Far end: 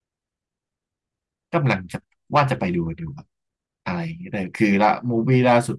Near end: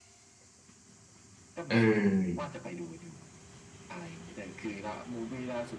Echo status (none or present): present